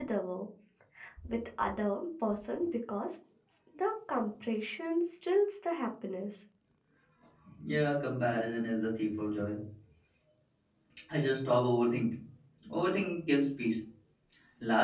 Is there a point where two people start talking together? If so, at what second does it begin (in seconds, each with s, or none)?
none